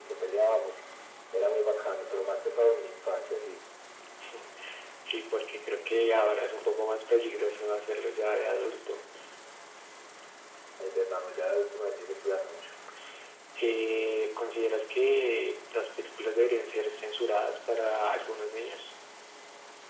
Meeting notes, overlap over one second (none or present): none